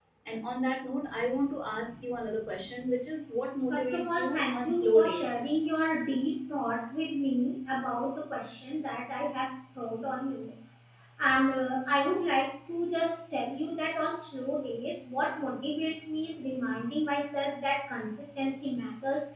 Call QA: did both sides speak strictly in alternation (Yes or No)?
No